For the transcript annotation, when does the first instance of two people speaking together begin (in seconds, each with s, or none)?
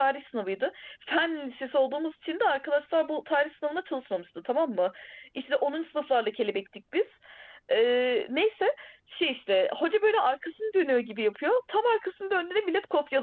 none